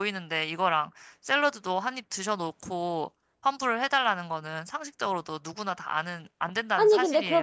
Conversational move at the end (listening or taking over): taking over